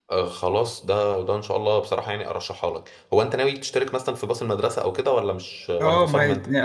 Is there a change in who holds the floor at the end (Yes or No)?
Yes